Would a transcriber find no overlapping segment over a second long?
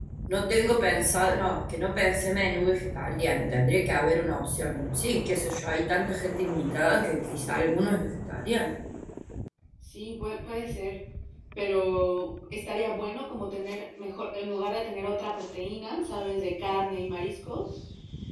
Yes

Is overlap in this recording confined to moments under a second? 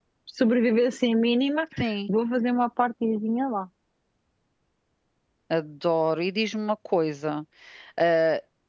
Yes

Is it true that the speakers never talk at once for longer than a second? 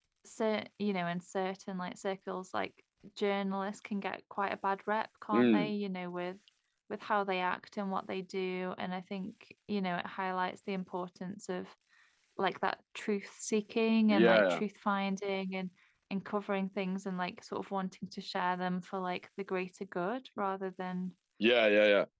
Yes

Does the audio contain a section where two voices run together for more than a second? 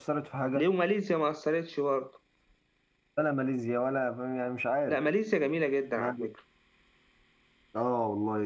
No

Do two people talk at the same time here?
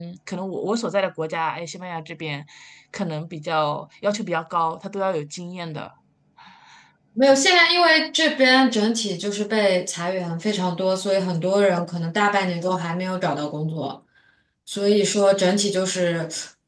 No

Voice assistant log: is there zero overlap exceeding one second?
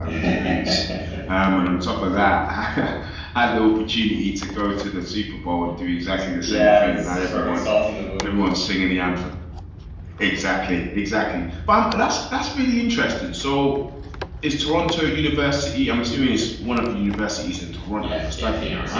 No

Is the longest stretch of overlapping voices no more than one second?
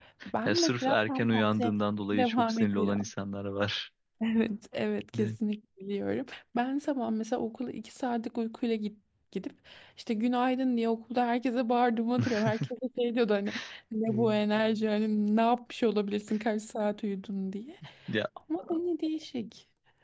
No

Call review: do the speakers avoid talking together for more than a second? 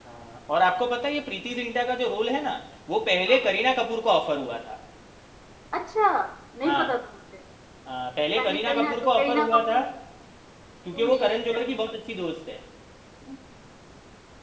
No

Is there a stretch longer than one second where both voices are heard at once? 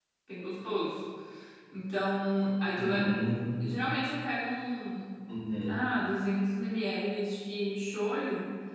No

